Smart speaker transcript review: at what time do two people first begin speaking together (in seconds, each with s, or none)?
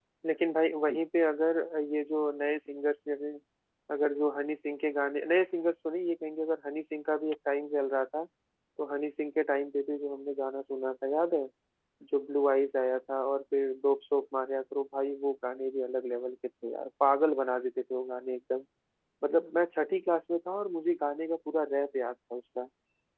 none